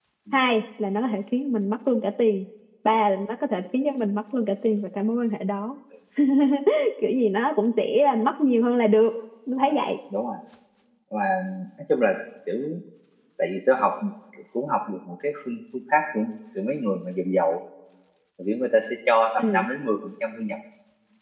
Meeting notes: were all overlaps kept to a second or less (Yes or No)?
Yes